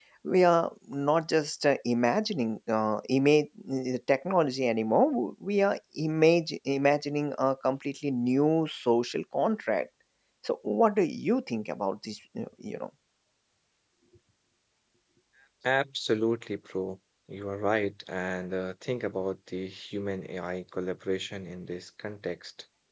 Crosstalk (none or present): none